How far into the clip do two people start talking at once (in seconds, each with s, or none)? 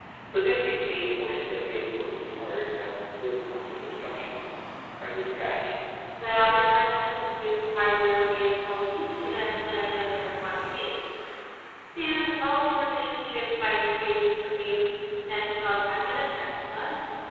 none